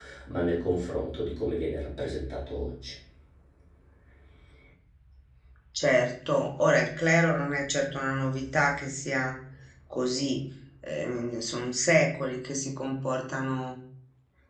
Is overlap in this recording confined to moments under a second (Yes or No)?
Yes